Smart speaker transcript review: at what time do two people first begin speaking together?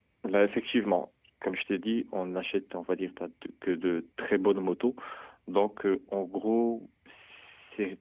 none

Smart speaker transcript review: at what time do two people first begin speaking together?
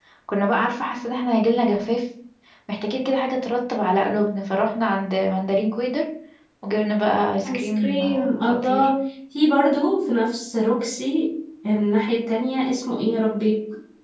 7.5 s

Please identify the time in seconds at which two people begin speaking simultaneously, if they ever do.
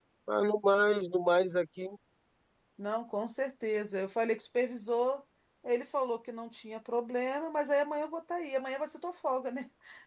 none

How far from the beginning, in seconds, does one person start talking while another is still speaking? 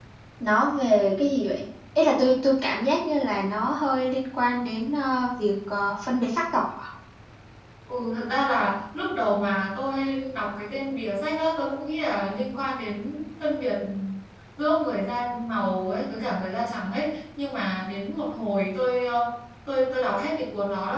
none

